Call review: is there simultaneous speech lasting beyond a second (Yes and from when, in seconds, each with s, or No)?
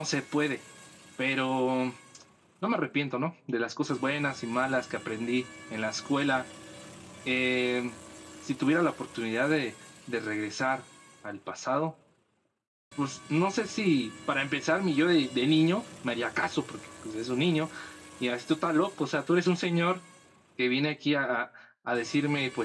No